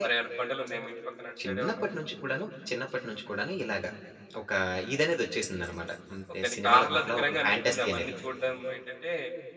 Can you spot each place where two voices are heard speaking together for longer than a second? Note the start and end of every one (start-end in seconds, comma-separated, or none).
6.4-8.1